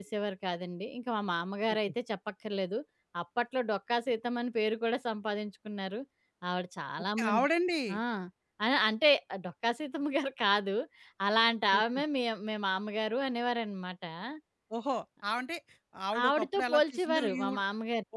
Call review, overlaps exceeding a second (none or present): present